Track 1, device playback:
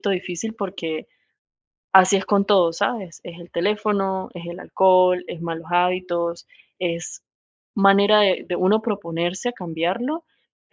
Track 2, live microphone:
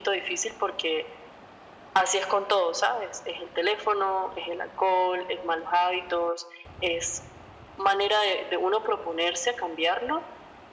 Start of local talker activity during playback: none

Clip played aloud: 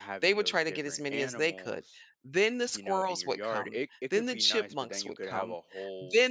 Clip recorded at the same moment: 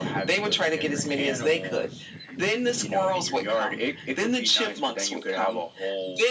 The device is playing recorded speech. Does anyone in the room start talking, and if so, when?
none

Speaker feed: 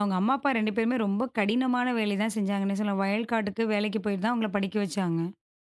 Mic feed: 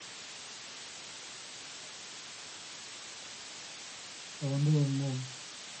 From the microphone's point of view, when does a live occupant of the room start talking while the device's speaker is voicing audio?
4.3 s

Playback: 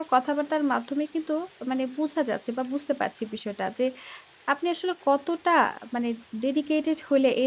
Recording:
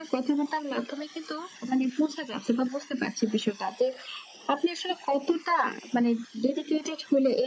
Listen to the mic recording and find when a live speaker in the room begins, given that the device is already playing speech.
none

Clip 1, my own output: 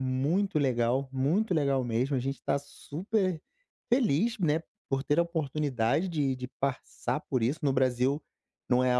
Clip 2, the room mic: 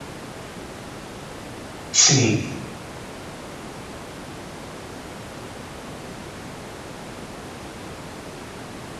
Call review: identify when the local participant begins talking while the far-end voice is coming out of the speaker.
1.9 s

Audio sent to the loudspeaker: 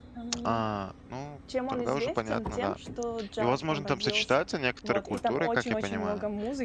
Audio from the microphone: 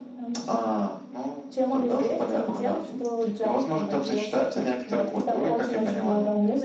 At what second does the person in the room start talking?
none

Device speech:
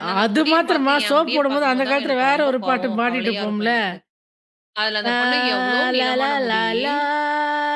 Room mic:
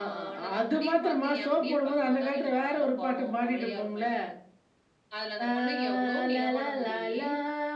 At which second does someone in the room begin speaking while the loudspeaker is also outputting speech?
none

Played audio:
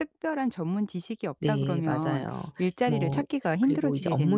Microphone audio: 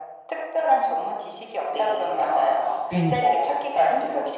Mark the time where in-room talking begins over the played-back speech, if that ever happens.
2.9 s

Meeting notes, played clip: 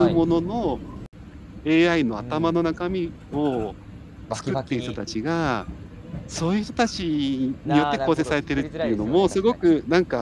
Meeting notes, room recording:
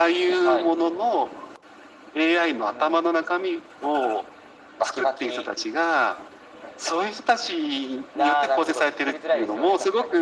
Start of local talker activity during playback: none

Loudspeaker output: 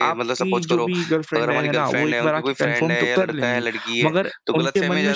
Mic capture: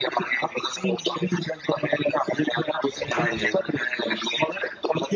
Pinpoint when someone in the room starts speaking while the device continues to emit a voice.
3.1 s

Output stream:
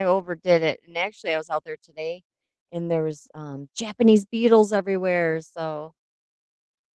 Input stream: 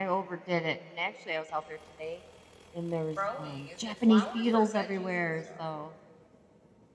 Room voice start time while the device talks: 3.1 s

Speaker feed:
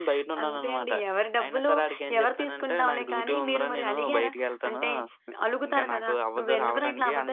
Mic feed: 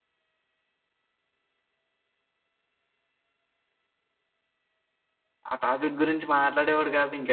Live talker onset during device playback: 5.5 s

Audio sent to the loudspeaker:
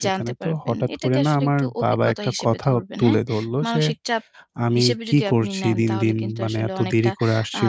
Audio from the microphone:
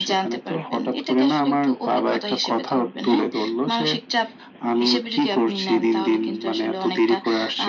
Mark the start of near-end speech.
none

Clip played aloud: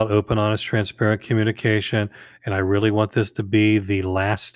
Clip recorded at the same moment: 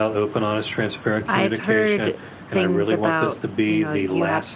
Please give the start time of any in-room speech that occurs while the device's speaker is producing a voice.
1.3 s

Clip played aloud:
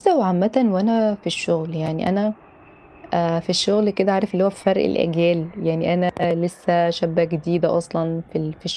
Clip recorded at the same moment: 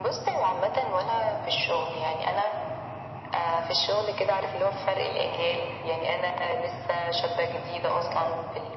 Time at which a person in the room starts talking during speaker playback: none

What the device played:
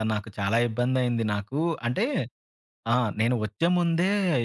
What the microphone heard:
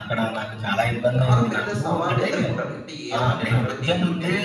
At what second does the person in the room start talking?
1.2 s

